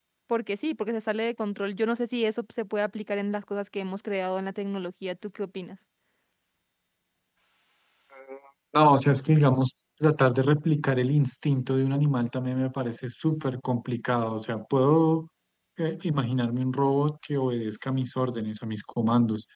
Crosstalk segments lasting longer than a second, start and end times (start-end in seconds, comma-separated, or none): none